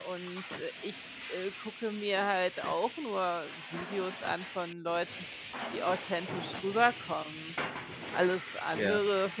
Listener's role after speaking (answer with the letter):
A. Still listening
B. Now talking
A